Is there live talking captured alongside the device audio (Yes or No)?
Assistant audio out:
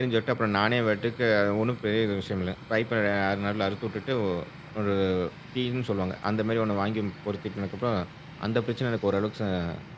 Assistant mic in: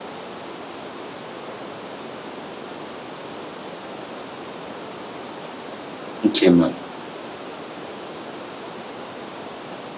Yes